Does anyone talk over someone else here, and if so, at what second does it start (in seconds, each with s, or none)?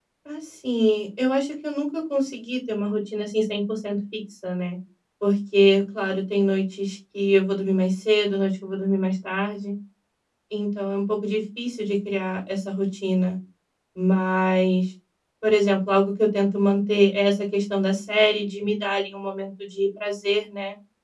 none